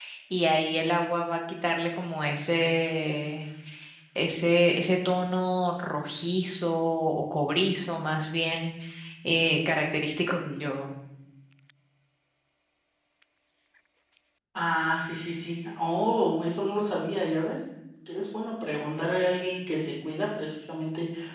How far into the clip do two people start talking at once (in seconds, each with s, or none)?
none